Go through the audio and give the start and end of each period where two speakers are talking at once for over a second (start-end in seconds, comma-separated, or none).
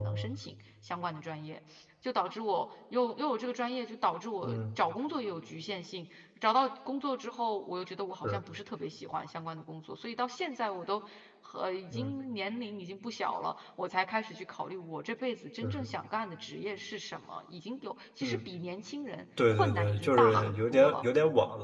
19.5-21.0